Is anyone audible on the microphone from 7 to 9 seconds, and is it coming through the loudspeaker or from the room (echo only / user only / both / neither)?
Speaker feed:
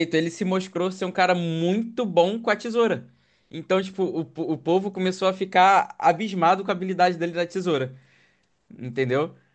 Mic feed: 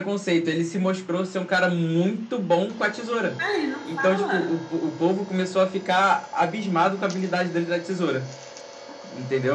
echo only